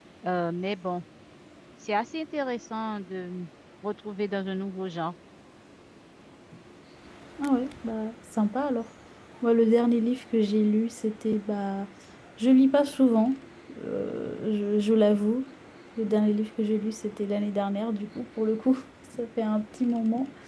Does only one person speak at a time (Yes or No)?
Yes